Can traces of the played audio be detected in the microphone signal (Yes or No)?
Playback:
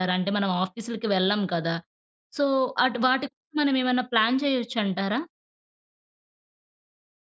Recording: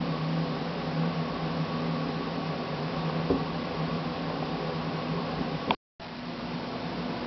No